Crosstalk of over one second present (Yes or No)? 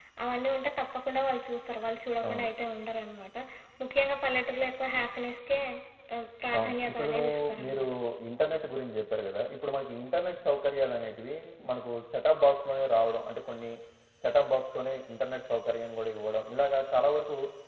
Yes